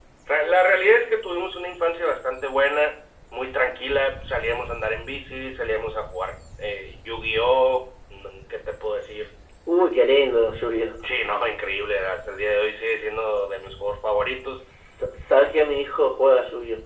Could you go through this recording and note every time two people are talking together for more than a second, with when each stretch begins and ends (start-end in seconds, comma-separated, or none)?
none